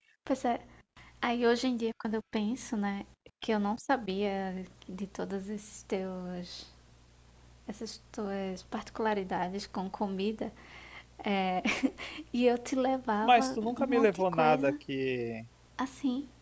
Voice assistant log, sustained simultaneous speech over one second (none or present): present